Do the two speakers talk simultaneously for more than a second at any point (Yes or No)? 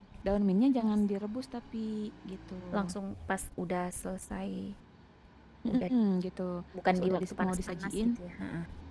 Yes